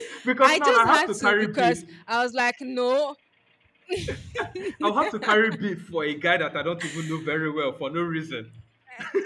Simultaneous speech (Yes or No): Yes